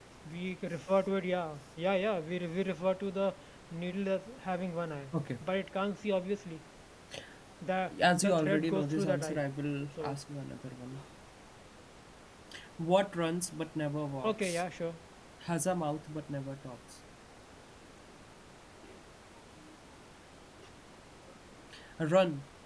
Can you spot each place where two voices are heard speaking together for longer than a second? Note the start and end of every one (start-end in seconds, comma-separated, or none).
8.2-9.4